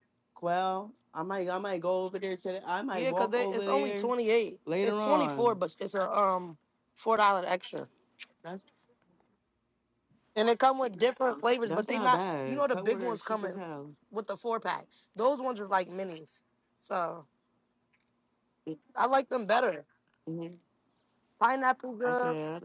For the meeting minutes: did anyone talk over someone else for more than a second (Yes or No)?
Yes